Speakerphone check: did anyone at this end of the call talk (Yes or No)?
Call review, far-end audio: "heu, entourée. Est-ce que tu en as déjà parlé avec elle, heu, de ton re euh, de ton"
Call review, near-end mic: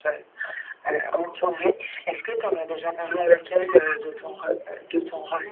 Yes